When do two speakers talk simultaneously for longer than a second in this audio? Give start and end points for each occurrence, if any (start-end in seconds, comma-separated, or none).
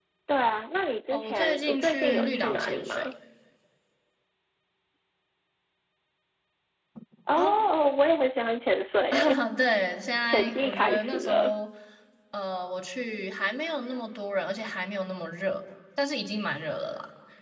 1.1-3.0, 10.3-11.6